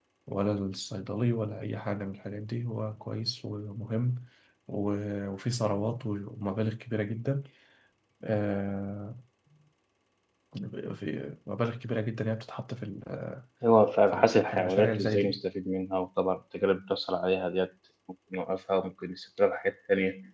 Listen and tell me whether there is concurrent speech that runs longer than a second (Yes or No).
Yes